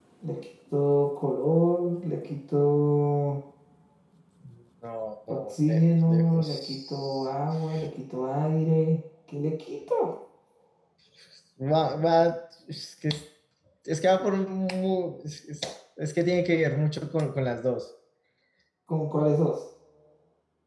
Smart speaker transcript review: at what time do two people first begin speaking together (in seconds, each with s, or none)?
5.3 s